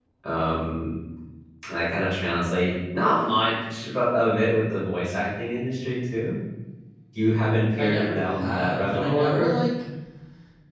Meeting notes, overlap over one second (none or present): present